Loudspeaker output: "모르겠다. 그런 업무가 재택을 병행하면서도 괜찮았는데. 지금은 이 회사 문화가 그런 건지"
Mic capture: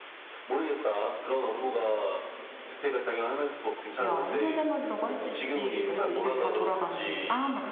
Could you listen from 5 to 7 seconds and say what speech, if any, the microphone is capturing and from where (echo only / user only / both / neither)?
both